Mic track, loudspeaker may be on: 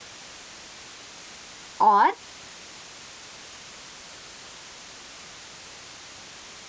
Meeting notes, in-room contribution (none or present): present